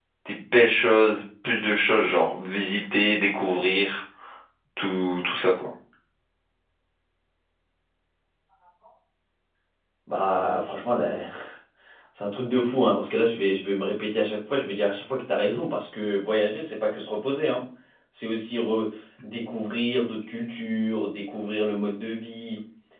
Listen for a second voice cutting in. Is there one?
No

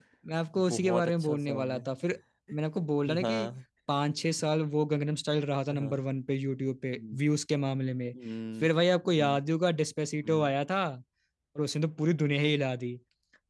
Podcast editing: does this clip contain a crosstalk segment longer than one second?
Yes, from 0.5 s

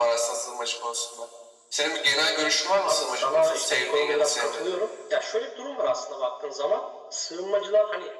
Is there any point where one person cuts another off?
Yes, from 2.9 s

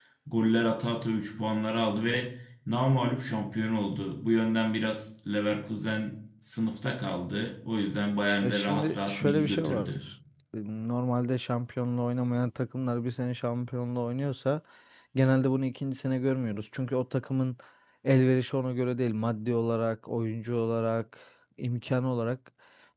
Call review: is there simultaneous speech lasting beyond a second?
Yes, from 8.4 s

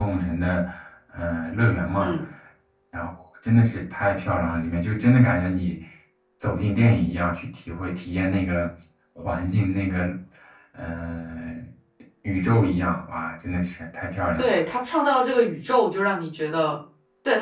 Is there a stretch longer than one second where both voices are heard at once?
No

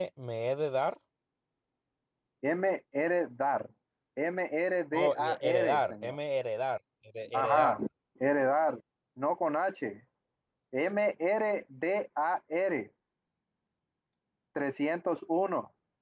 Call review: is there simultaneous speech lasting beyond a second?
Yes, from 4.9 s

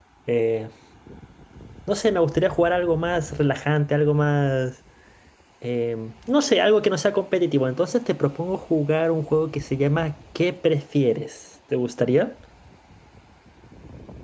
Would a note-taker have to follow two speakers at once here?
No

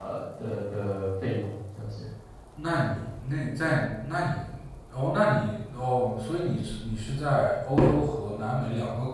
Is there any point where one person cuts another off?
No

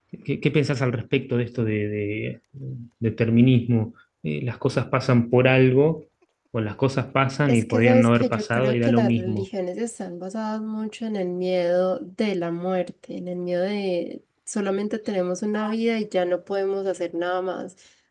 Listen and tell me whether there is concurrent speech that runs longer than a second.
Yes, from 7.5 s

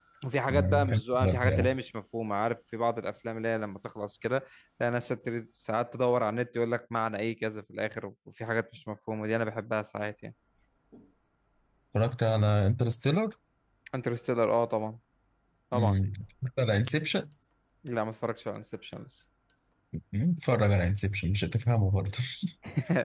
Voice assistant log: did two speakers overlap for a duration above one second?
Yes, from 0.5 s

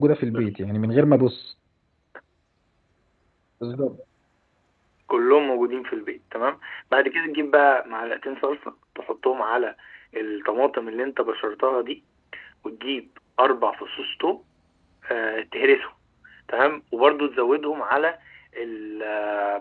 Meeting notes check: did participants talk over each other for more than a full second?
No

